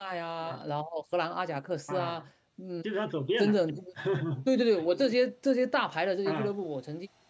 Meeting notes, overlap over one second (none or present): none